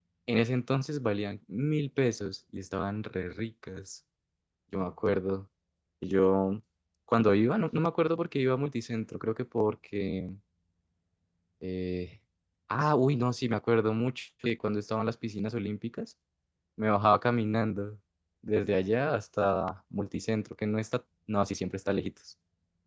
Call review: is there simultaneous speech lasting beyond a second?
No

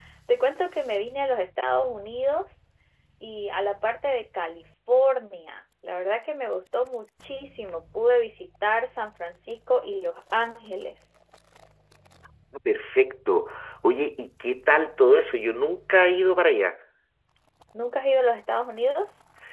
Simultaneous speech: No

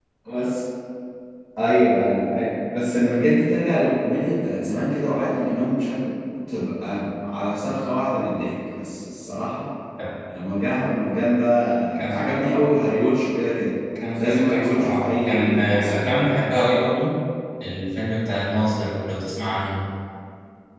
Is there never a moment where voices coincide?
No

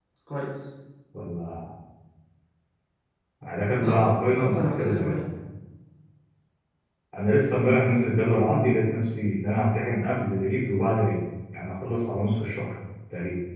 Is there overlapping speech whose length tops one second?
Yes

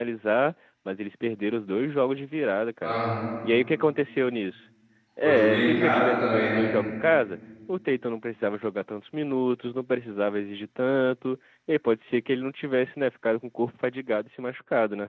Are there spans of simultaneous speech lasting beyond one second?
Yes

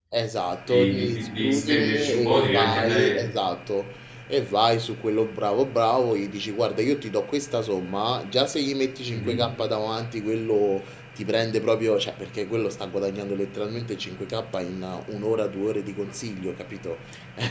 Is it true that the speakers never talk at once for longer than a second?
No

